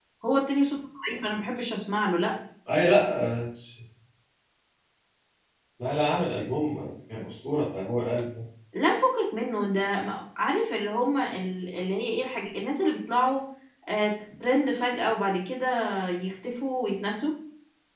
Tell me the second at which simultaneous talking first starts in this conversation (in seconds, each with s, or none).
none